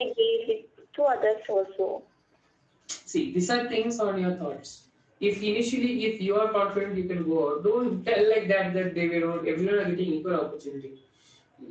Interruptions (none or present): none